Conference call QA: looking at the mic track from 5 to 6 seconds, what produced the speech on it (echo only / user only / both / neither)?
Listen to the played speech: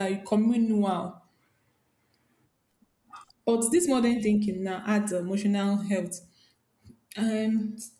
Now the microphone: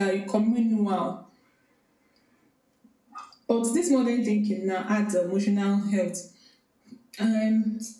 echo only